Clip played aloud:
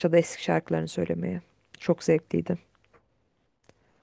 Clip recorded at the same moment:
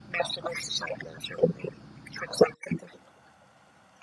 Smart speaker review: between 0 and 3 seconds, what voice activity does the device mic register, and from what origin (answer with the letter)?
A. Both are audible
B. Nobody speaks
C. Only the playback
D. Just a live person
C